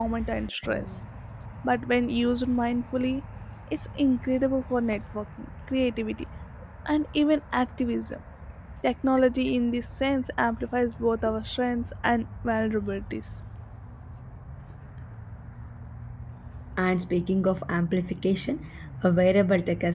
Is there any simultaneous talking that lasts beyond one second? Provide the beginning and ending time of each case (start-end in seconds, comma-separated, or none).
none